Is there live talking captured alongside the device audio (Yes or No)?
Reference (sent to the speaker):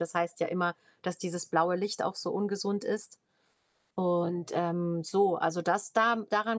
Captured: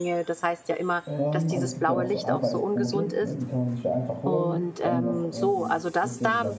Yes